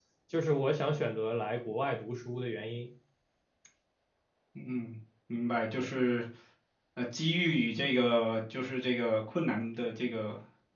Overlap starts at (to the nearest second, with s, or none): none